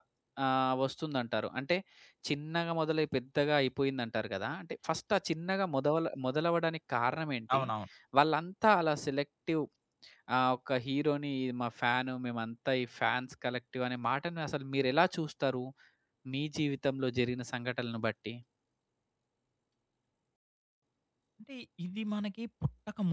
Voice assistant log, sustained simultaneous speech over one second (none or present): none